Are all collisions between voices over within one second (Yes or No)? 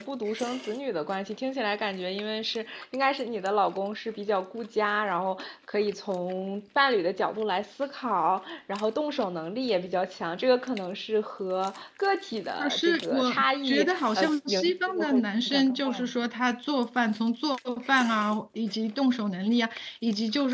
No